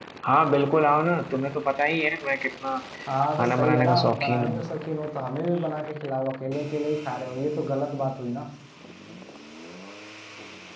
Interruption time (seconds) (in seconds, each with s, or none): 3.4 s